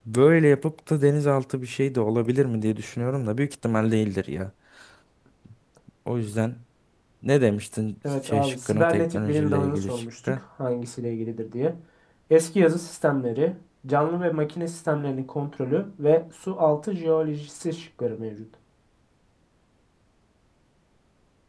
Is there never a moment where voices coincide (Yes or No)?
No